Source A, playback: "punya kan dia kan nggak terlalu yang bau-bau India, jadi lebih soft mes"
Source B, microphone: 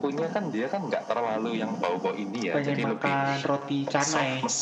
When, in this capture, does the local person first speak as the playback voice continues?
2.5 s

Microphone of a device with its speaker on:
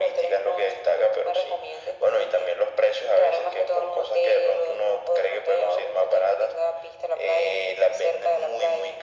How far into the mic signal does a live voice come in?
none

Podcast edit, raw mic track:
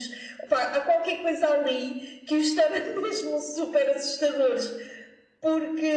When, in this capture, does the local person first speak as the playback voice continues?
none

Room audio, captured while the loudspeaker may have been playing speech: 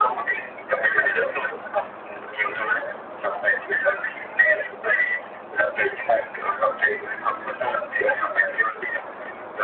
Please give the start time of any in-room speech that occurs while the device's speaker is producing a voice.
none

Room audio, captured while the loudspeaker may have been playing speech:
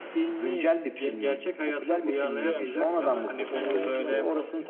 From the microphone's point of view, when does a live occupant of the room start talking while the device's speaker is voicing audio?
2.3 s

